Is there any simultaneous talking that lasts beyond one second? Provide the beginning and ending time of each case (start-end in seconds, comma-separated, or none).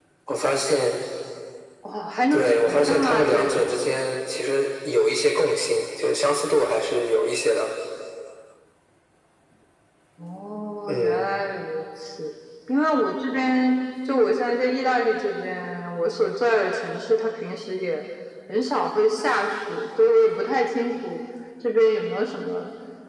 2.3-3.8